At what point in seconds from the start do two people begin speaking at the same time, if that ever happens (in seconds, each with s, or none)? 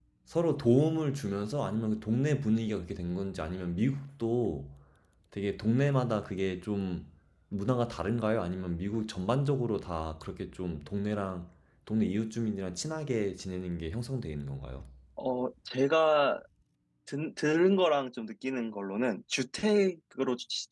none